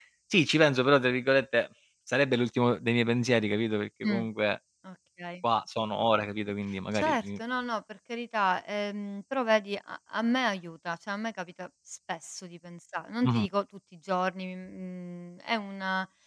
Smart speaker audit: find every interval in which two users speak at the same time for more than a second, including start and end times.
none

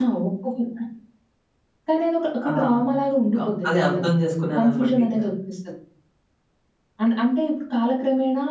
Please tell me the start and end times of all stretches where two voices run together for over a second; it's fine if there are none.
3.3-5.1

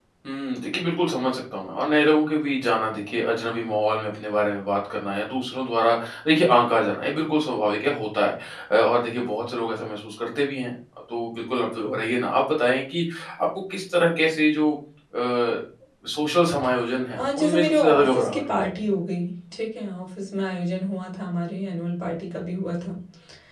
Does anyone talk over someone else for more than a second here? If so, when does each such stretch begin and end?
17.2-18.5

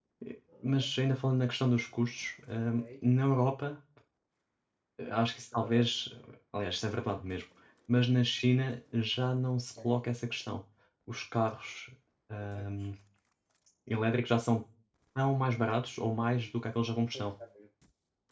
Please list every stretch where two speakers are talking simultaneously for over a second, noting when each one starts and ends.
none

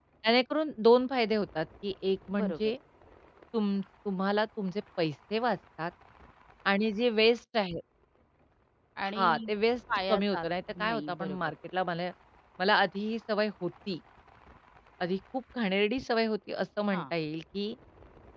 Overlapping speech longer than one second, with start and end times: 10.1-11.4

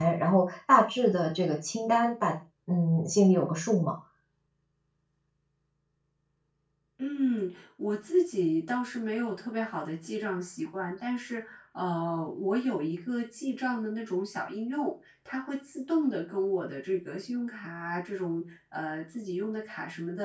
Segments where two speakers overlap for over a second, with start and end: none

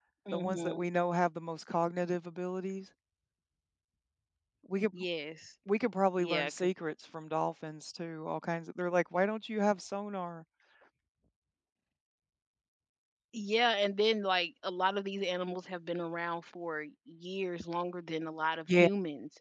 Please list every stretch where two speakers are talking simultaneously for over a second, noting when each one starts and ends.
none

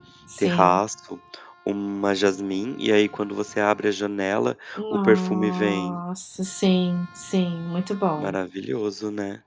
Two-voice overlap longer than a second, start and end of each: 4.8-6.0

